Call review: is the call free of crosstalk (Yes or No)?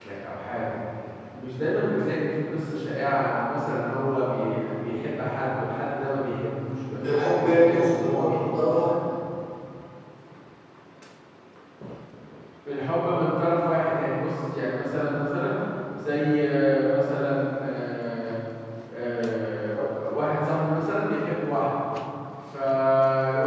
No